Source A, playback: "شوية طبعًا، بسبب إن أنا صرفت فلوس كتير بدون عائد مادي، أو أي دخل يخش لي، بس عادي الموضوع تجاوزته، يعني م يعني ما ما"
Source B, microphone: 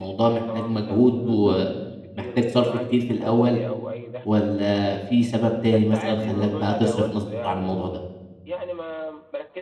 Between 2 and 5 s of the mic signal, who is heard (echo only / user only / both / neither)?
both